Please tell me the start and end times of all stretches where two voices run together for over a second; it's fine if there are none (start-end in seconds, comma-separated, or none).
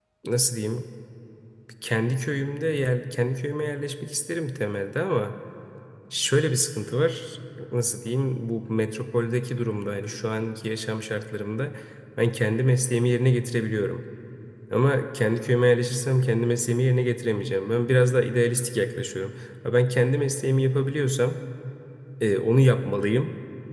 none